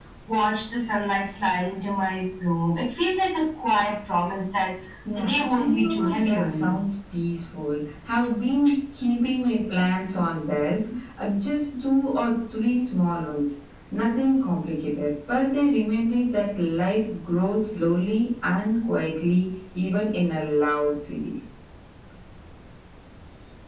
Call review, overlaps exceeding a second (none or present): present